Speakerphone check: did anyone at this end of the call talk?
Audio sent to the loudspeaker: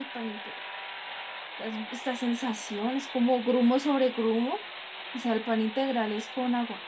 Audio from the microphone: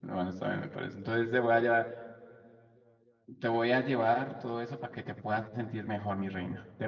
Yes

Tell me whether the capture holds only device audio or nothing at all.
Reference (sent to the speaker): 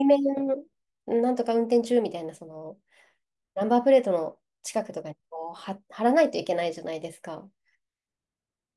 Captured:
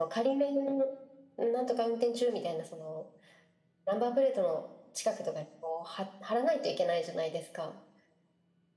Yes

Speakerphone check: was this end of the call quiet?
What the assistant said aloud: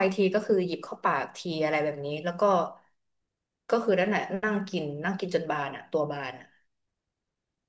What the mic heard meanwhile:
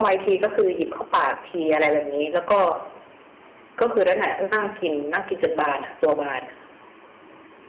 Yes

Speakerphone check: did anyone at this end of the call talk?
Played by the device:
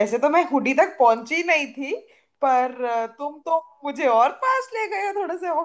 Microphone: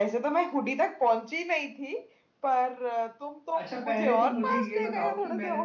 Yes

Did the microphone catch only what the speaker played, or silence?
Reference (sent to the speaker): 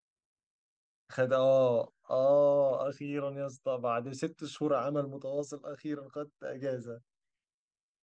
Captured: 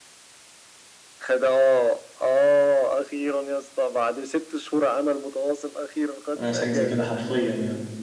No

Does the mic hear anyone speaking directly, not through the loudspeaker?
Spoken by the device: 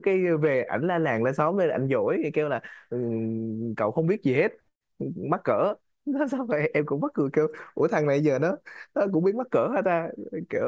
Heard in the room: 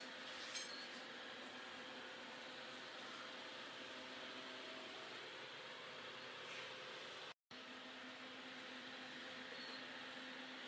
No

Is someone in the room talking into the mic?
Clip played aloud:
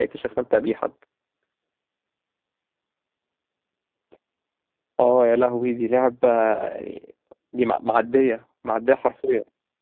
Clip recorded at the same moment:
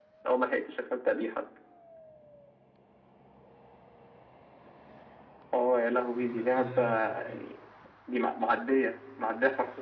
Yes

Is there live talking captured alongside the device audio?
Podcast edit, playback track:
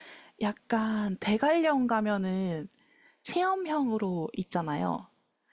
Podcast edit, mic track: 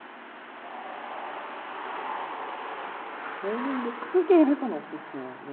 Yes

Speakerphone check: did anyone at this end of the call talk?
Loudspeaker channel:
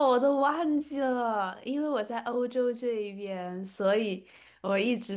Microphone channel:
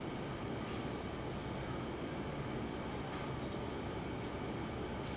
No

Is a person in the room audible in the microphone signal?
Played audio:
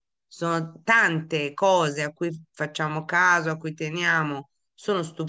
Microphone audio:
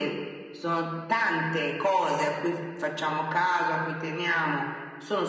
No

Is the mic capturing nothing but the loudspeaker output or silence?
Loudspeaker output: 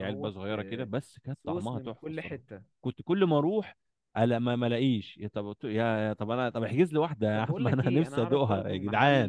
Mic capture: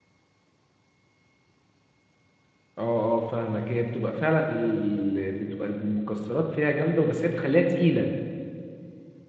No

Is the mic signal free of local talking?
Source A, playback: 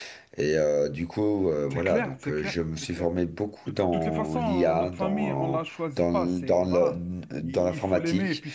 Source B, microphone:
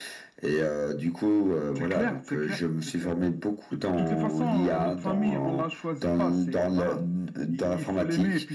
Yes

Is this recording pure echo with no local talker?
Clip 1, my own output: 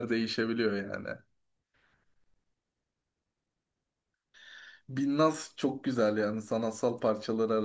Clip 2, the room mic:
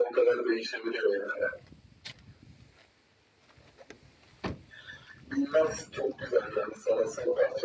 Yes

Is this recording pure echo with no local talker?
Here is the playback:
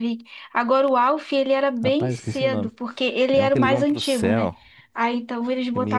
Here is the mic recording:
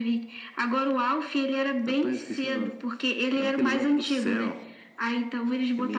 Yes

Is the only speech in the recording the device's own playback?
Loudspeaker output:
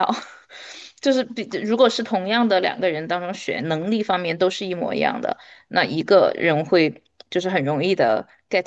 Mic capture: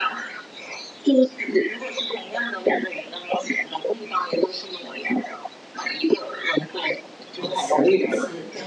No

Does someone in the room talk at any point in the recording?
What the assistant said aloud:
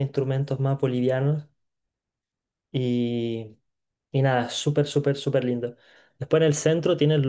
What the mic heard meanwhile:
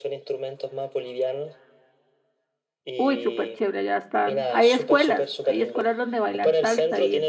Yes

